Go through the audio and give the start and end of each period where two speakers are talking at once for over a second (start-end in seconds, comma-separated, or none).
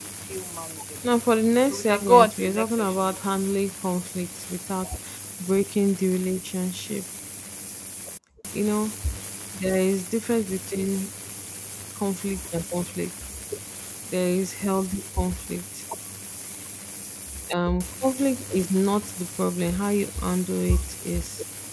1.7-3.0